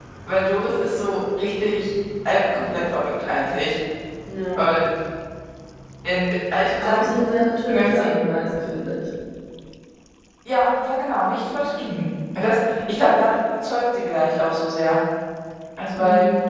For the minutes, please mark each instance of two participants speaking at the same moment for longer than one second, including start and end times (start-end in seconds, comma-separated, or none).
none